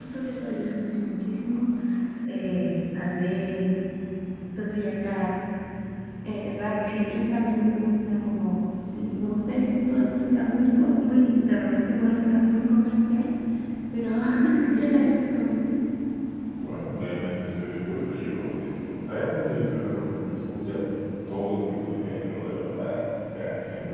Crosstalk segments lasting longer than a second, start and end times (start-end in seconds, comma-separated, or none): none